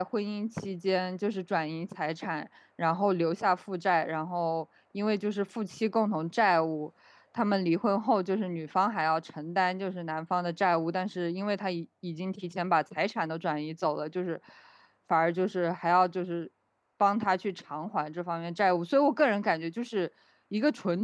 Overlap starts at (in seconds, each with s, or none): none